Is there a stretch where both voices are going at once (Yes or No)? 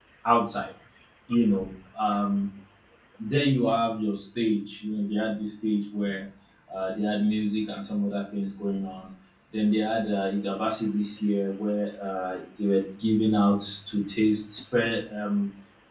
No